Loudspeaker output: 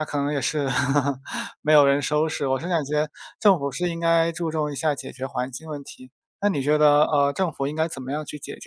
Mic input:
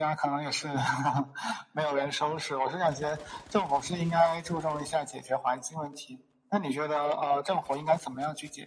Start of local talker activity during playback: none

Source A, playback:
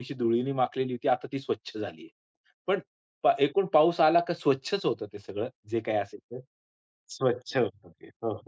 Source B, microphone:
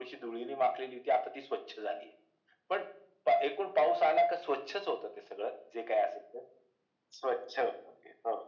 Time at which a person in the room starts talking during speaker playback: none

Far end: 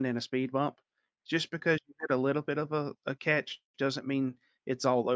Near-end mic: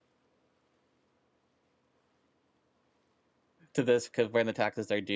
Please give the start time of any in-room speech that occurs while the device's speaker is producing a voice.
3.7 s

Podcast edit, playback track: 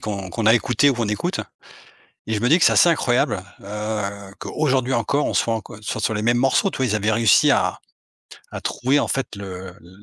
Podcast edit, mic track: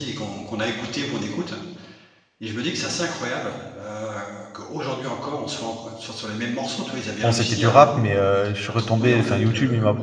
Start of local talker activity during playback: 7.2 s

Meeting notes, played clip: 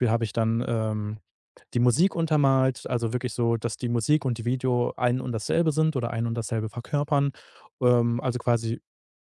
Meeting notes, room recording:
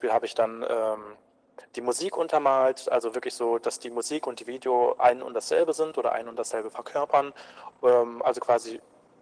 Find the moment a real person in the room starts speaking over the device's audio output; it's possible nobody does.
none

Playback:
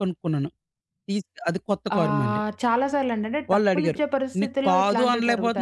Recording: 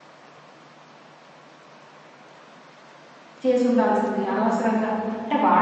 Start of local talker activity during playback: 3.4 s

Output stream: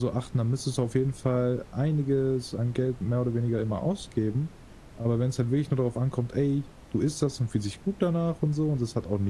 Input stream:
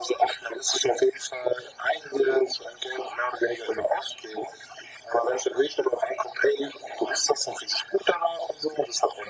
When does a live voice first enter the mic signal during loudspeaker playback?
none

